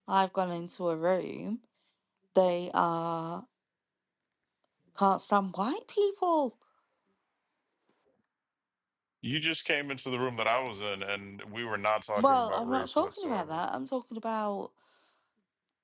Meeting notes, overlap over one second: present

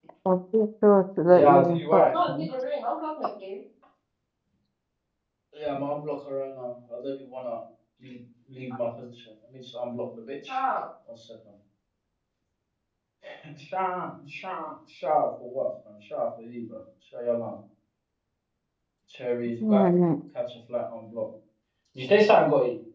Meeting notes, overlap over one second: present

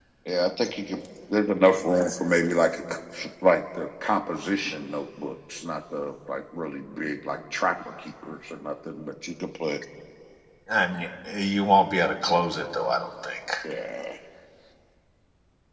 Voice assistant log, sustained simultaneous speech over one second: none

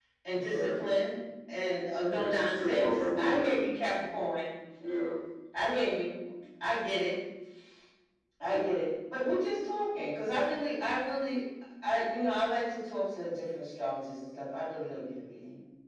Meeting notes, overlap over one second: present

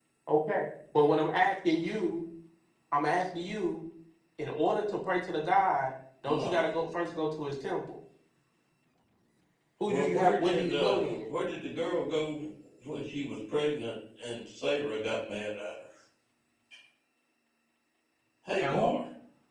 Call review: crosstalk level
present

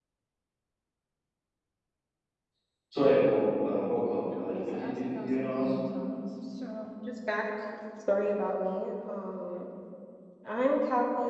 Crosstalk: present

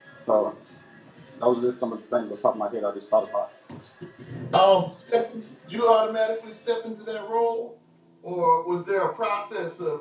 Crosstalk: none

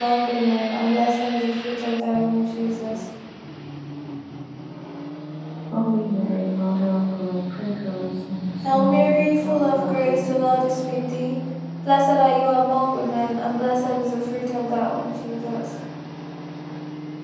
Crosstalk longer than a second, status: present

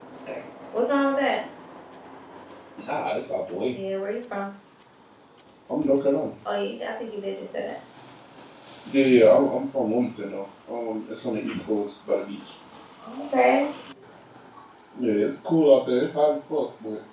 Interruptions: none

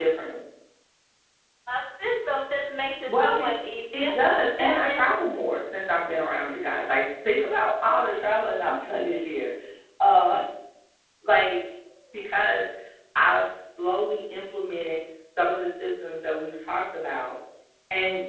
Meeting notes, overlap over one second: none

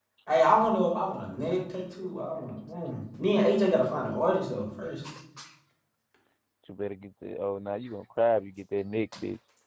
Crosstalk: none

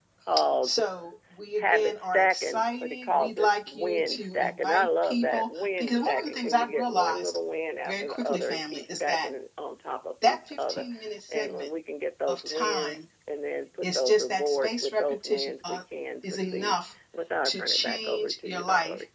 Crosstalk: present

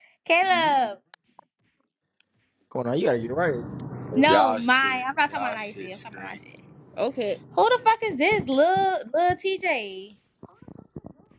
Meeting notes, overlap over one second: present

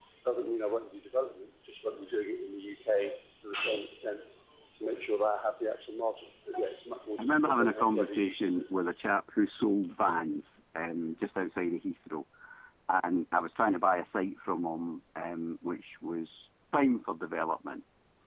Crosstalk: present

